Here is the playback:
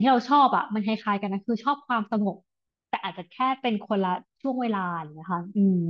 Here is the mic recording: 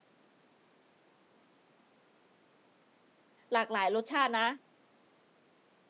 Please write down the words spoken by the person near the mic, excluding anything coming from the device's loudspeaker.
หลากหลายรสชาตินะ

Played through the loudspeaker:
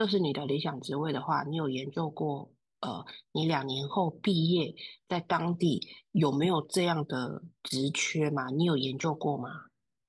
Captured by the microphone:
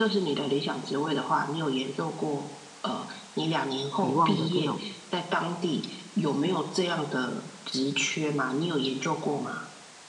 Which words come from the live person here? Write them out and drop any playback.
期望的这种

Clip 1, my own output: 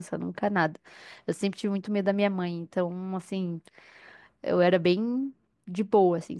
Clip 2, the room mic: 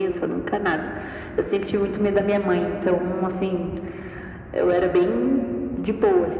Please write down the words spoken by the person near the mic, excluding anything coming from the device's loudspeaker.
none

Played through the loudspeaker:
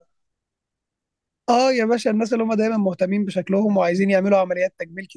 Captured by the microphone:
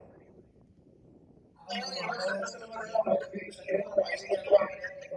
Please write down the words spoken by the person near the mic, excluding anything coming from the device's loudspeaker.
عنده مهارات وكده

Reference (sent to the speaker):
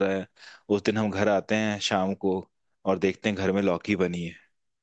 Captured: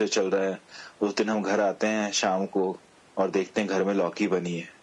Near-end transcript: none

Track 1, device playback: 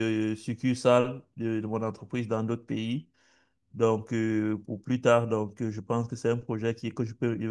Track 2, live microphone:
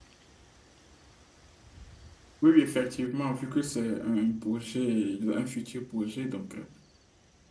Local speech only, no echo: Oui, oui, effectivement, vu que c'est un projet, un futur projet, donc. euh,

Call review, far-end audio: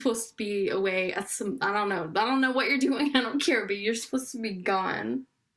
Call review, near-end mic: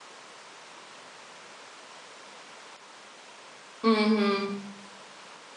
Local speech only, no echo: Mm-hmm.

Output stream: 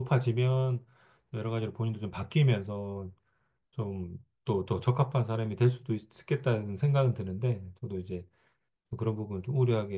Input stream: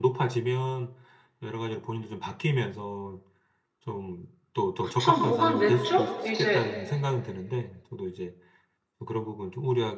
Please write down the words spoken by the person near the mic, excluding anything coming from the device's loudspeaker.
그쵸 뭐 한 몇 주? 이제

